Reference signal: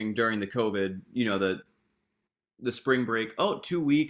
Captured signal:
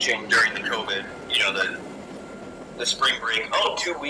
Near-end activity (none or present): none